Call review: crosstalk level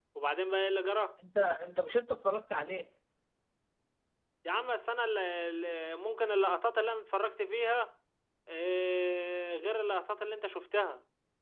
none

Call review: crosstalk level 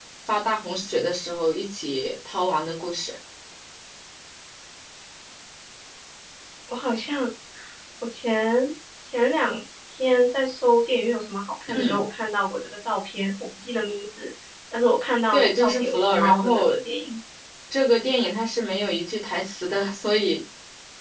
present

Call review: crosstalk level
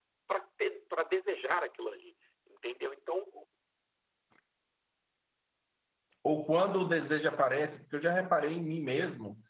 none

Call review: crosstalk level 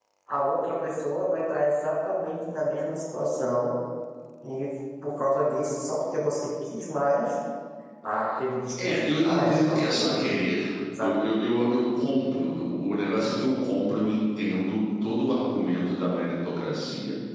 present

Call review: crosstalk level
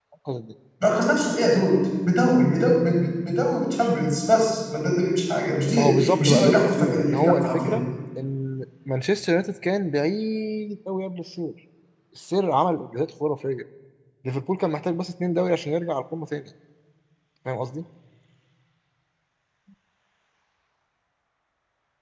present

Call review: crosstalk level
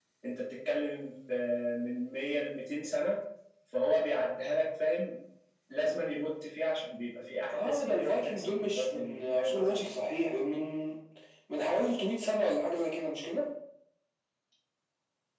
present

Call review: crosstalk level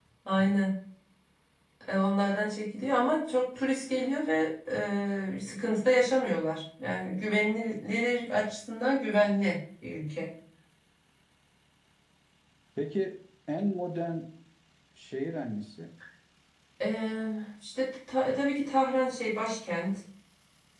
none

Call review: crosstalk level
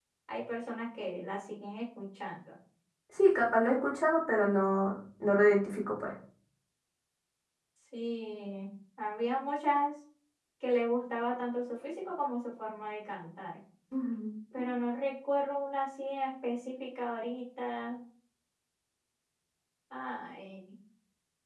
none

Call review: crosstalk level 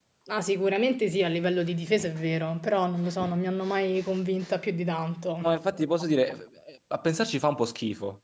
none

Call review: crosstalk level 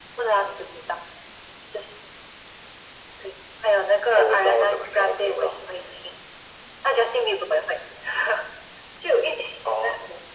present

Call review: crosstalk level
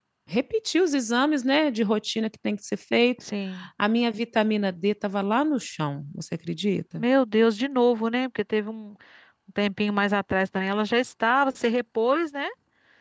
none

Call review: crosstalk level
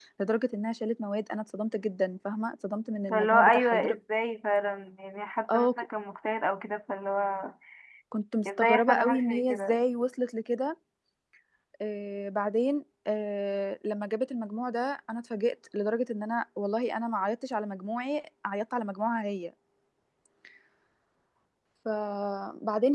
present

